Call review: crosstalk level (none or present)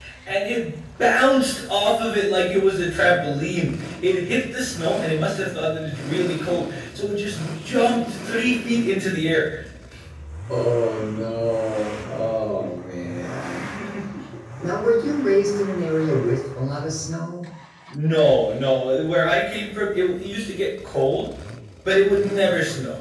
none